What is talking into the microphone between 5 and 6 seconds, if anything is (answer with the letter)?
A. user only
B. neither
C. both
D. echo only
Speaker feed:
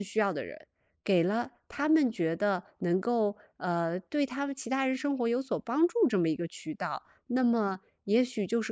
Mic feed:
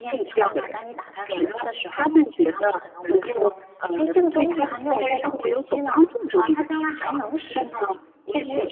C